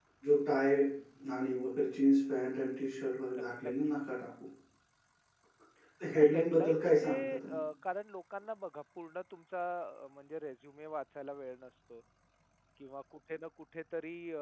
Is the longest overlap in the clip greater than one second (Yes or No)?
Yes